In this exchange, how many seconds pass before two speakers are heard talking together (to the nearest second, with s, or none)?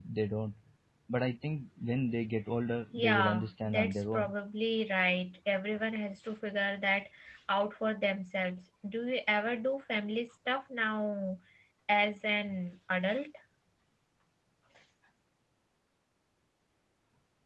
3 s